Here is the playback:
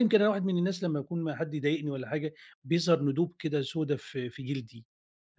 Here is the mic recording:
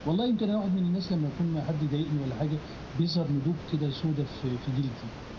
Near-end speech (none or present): none